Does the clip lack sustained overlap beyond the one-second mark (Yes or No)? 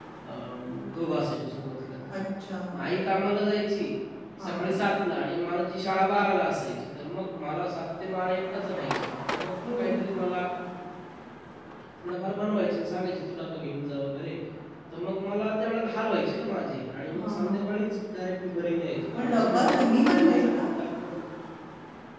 No